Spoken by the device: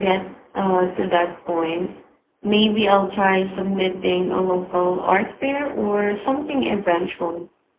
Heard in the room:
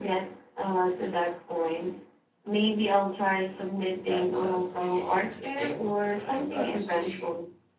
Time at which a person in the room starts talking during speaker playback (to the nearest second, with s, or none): 4 s